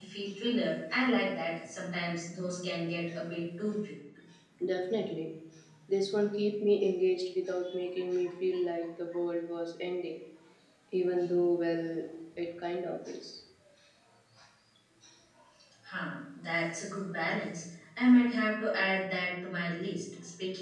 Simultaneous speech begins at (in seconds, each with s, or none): none